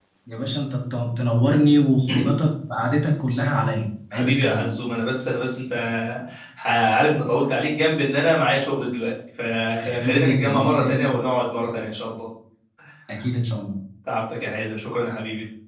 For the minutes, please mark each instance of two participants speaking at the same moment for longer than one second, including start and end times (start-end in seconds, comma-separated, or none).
9.8-11.1